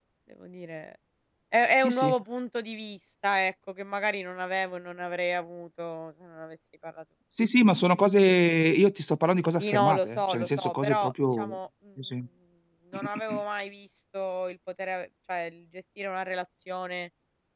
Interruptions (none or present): present